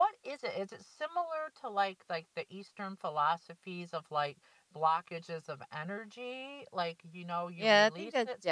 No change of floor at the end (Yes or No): No